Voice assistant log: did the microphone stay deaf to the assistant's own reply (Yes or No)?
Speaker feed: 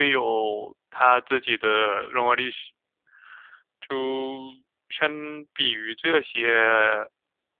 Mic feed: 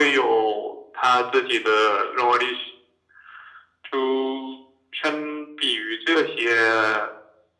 No